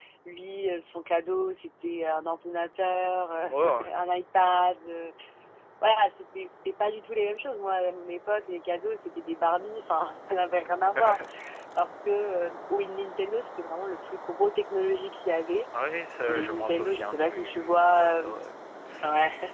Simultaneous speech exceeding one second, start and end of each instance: 16.3-18.4

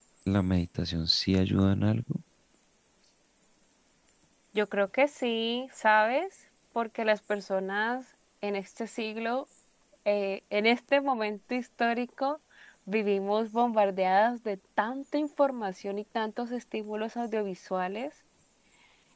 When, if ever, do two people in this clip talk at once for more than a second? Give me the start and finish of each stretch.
none

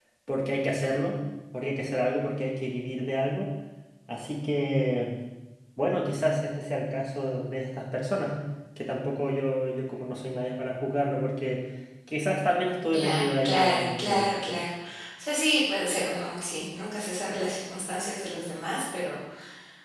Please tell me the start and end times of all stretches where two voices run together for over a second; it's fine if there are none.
12.9-14.3

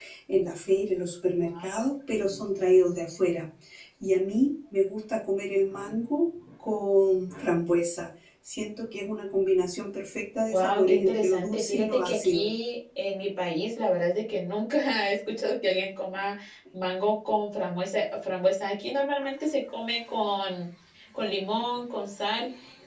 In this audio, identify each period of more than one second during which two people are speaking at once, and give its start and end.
10.5-12.5

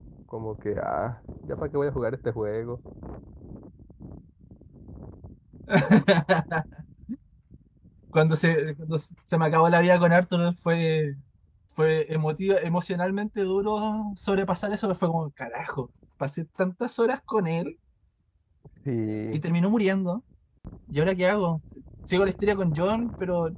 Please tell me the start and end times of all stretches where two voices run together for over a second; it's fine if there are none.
none

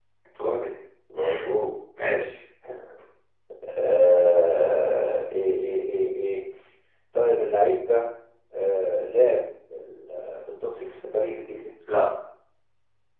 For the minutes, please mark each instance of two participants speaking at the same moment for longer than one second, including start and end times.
none

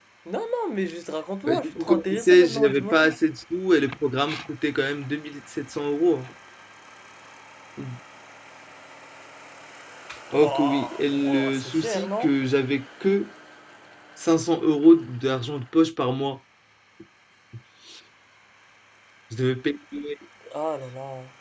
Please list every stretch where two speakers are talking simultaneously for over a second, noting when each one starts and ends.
1.5-3.1, 10.4-12.3

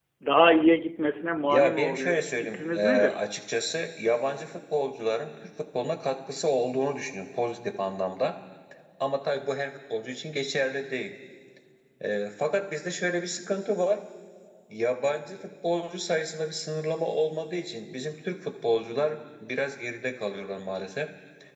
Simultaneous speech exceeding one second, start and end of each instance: 1.5-3.2

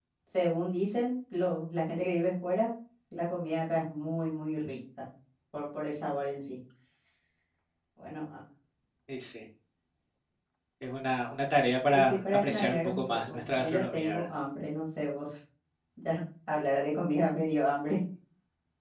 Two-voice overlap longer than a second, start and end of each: 11.9-14.2

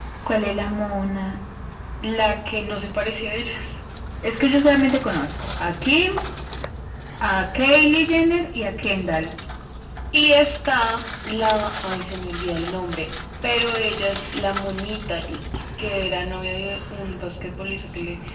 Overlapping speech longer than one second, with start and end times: none

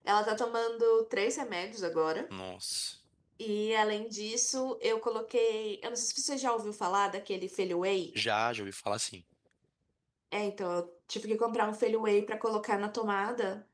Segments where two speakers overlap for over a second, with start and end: none

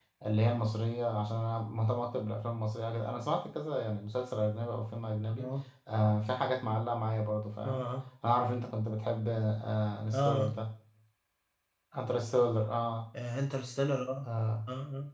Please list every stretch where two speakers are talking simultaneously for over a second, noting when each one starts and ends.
none

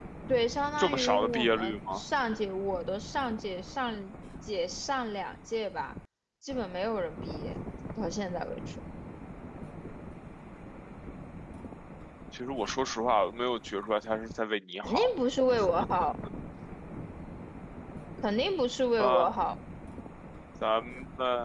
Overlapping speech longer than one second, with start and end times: 0.8-2.0

